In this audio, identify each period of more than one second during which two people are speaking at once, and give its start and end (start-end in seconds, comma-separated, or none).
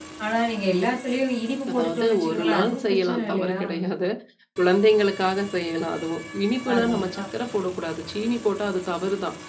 1.7-3.6